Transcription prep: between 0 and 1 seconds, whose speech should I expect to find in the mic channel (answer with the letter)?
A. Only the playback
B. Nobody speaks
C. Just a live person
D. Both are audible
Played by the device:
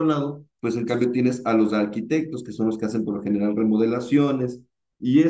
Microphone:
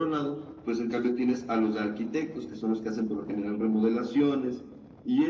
A